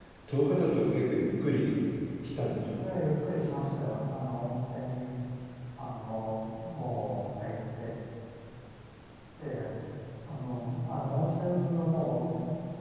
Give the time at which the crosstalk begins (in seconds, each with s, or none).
none